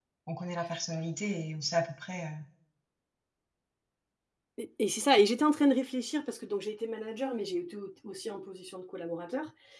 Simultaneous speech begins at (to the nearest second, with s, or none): none